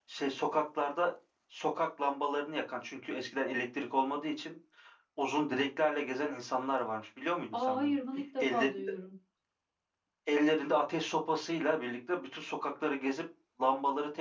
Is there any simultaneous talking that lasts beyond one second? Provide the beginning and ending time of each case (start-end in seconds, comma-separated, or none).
none